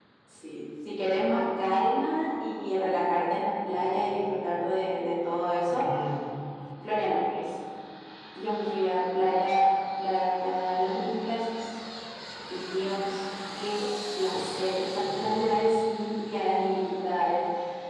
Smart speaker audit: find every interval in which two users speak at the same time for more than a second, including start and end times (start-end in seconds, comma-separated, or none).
none